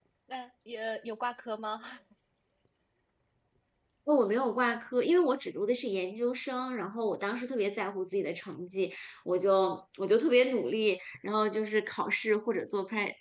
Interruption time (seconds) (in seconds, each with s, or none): none